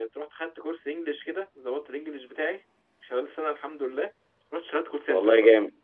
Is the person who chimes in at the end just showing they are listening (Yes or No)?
No